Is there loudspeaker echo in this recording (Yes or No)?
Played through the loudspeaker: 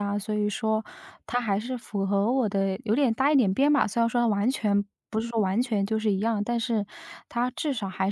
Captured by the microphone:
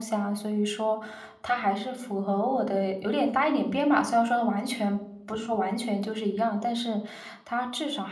Yes